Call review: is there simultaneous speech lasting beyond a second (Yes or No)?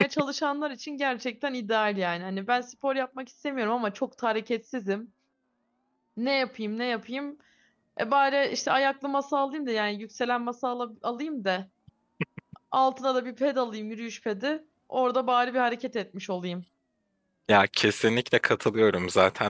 No